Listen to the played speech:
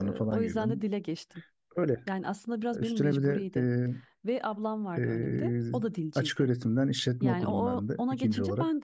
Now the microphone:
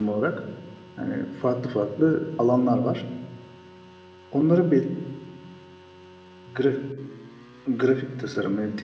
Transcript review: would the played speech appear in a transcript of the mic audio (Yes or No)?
No